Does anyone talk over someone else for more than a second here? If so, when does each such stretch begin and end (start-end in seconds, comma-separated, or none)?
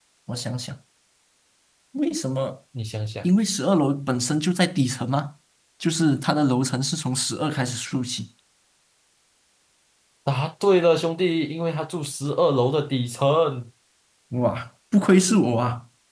none